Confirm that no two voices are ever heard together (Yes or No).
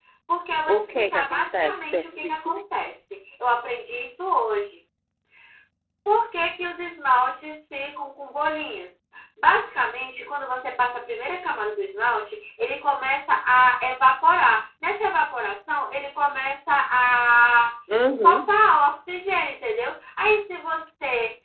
No